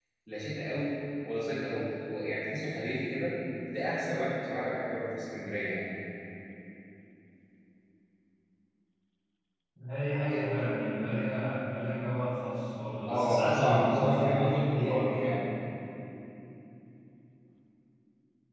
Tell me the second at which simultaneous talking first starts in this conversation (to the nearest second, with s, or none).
13 s